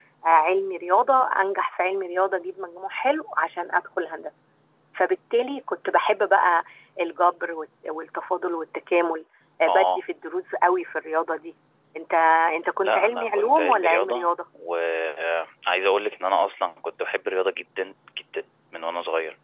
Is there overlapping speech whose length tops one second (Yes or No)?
Yes